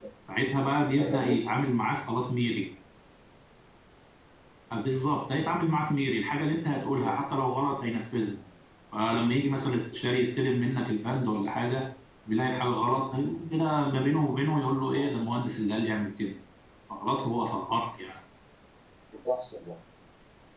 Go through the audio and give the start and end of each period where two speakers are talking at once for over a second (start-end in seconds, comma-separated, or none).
none